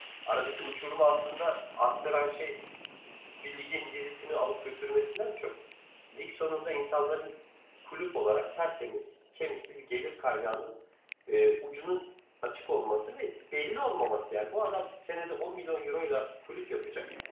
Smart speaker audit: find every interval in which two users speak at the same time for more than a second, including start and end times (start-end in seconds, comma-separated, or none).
none